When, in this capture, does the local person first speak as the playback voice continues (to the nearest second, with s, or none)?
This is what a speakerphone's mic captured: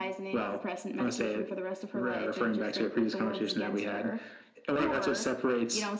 none